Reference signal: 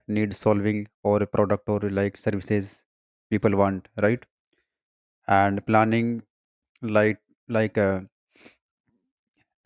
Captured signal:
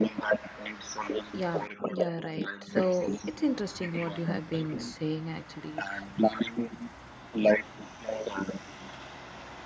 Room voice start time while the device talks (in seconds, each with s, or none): 1.3 s